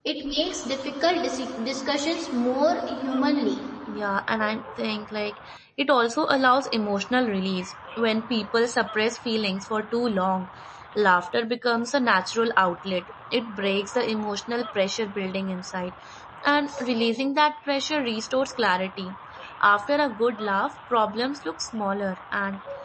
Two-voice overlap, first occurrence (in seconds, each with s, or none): none